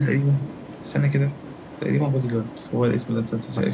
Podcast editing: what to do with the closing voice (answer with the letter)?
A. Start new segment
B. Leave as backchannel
A